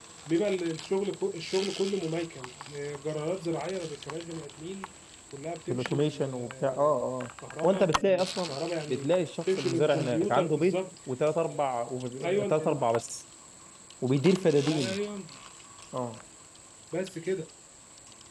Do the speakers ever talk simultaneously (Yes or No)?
Yes